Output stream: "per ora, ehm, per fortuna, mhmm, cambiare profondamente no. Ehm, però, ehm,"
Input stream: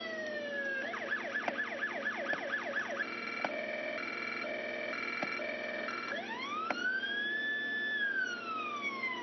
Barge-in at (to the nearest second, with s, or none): none